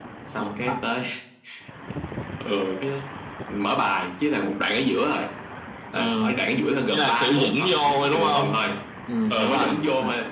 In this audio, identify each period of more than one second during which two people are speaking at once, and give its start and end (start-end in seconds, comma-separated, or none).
6.9-8.6